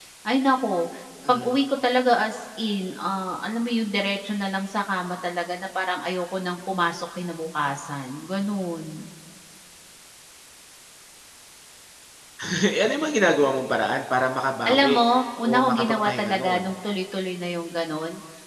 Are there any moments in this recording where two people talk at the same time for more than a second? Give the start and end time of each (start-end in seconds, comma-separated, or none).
15.4-16.7